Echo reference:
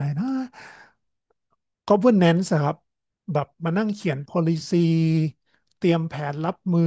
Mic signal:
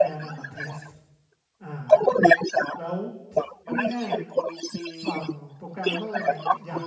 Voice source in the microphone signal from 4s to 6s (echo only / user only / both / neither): both